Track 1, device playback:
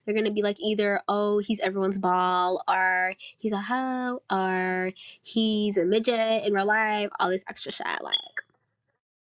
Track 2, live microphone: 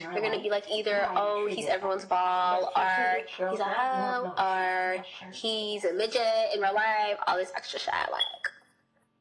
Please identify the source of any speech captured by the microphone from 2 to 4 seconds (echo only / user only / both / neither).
both